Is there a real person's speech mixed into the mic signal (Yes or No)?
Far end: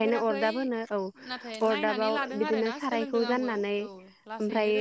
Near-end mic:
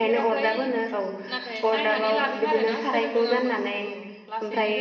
No